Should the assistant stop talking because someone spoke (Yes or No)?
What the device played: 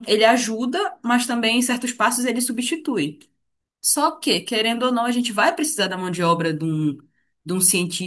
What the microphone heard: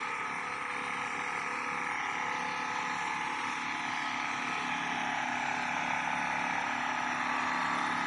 No